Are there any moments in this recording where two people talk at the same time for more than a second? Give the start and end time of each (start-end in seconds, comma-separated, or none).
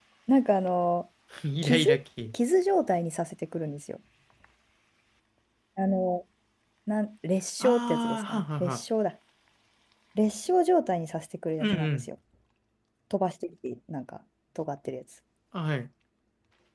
7.6-8.8